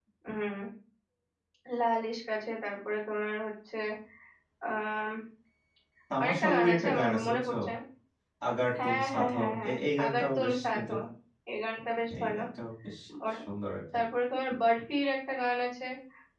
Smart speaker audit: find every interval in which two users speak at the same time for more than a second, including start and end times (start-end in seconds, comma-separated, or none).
6.2-7.5, 8.8-10.9